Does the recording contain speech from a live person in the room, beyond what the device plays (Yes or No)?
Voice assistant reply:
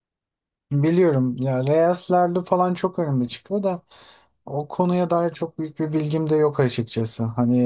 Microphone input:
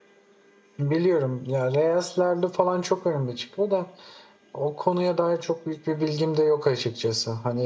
No